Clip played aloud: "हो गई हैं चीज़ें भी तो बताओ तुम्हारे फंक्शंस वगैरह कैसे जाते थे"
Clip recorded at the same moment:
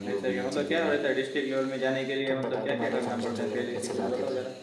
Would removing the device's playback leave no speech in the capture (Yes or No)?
No